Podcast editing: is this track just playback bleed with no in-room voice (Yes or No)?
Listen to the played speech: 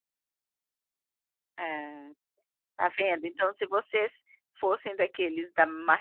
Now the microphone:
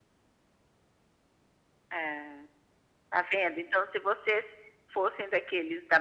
Yes